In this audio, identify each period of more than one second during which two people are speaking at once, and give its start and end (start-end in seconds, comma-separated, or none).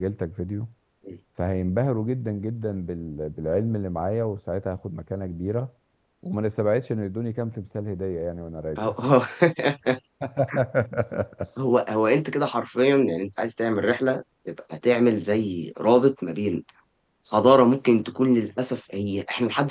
none